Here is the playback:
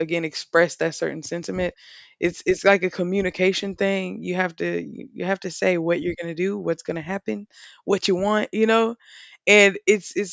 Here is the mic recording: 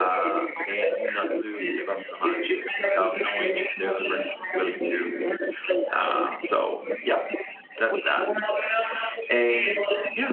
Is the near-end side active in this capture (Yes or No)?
Yes